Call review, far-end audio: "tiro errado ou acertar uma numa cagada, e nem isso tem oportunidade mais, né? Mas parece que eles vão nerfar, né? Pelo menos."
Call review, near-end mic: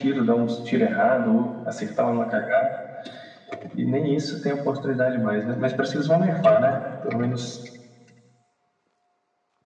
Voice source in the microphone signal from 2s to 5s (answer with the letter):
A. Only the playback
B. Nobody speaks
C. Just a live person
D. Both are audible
A